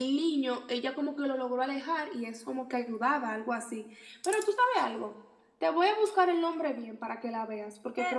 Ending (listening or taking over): taking over